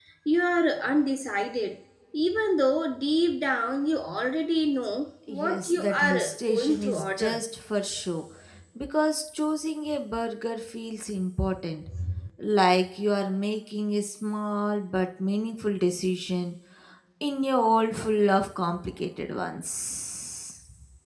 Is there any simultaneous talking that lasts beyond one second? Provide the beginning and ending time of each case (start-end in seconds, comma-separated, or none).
5.3-7.4